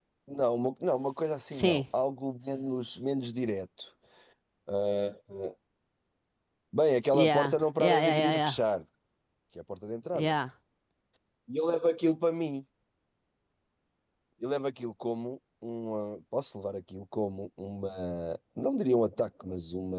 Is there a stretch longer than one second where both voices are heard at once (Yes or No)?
Yes